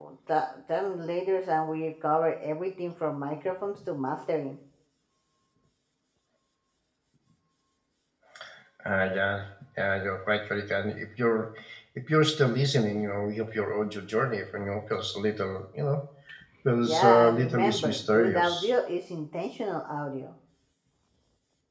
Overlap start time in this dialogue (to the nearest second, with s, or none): 17 s